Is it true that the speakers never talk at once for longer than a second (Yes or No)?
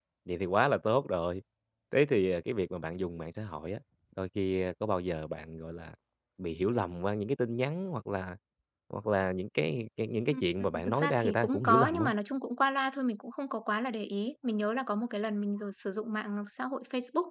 No